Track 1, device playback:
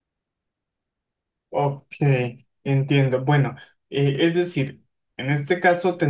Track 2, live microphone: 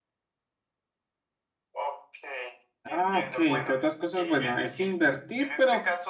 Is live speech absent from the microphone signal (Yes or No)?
No